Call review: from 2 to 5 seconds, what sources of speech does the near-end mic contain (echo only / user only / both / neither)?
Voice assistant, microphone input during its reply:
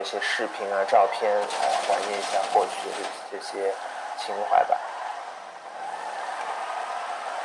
echo only